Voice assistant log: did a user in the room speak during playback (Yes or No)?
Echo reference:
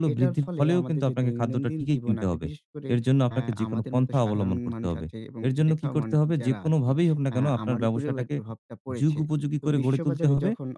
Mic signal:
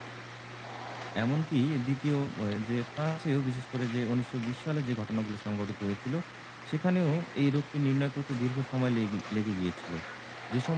Yes